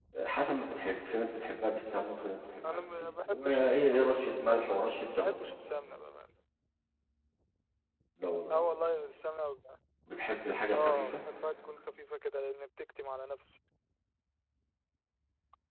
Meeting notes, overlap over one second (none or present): present